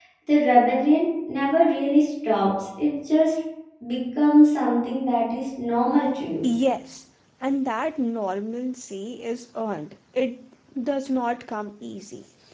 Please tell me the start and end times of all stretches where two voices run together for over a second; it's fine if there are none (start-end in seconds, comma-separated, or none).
none